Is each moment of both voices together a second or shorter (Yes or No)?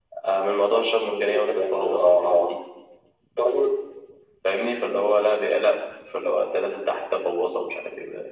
No